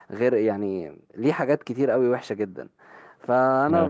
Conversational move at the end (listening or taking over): listening